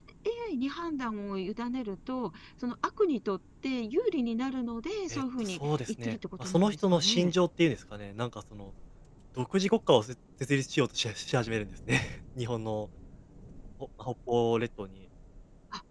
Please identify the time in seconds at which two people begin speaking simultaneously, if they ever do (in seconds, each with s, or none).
5.1 s